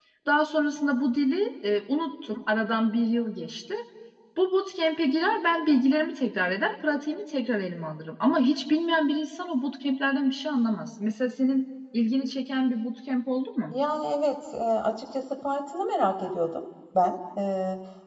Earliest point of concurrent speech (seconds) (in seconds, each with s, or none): none